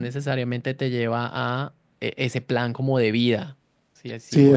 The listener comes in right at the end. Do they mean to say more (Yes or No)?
Yes